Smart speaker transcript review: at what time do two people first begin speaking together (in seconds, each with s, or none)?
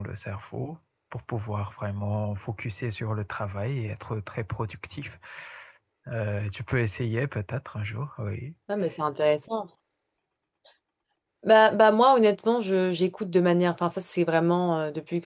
none